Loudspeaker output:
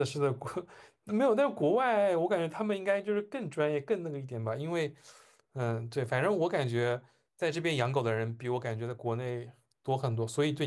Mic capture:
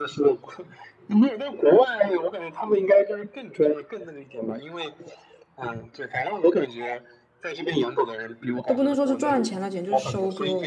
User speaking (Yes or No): Yes